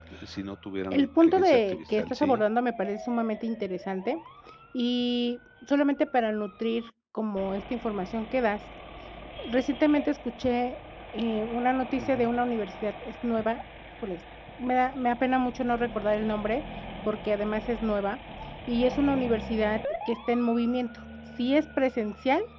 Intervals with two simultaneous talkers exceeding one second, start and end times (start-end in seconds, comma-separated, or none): 0.9-2.4